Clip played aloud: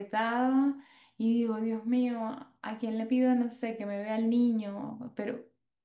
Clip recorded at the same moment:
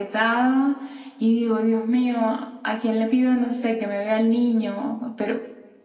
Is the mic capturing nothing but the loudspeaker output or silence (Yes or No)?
Yes